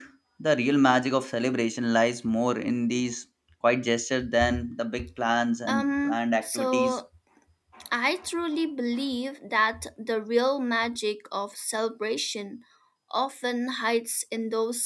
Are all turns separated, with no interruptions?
No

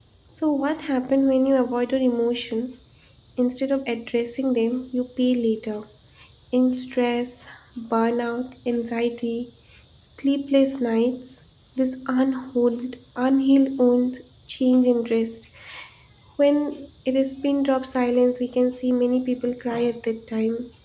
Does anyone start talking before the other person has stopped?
No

